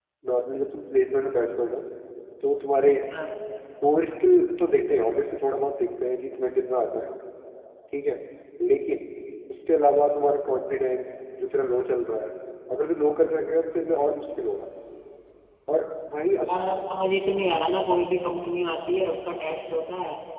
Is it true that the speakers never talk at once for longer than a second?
Yes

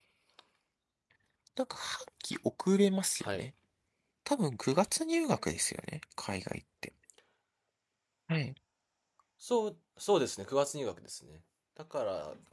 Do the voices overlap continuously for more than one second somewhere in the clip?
No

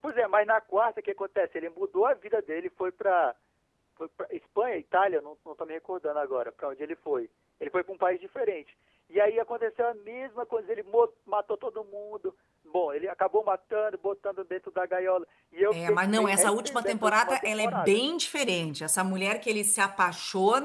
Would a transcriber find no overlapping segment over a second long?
No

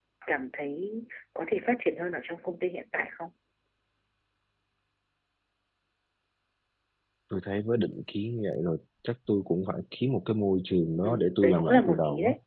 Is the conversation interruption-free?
No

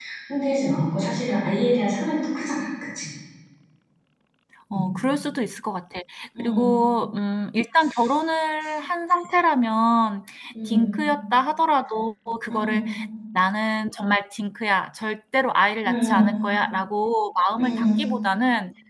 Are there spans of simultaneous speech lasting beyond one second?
No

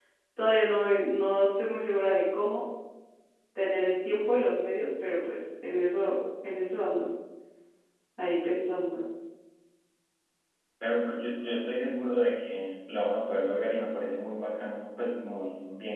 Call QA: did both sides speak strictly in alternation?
Yes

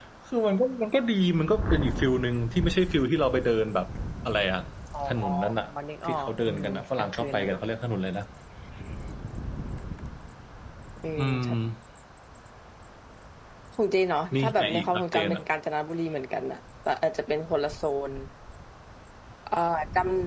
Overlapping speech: Yes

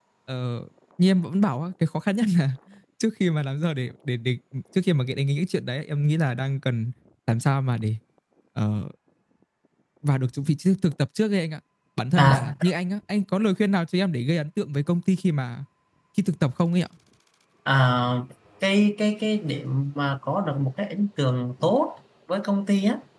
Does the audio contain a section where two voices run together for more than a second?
No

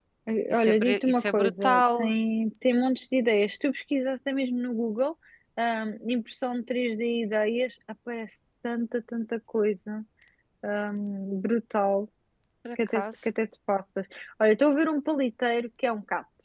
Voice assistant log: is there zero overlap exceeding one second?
No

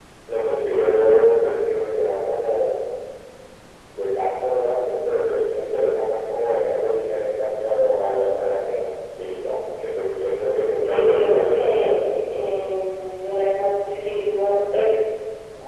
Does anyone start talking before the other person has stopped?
Yes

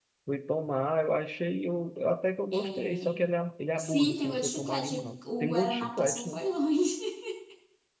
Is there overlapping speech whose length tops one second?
Yes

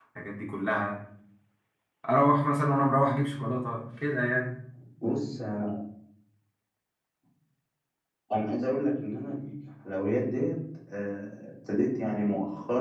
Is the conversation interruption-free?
Yes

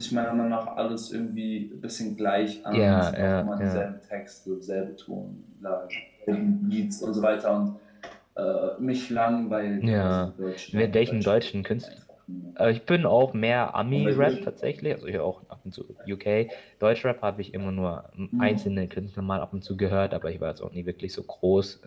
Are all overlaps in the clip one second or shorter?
No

